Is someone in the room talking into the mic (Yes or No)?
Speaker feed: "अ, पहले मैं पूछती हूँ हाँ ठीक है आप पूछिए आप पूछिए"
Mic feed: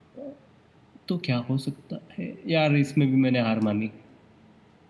Yes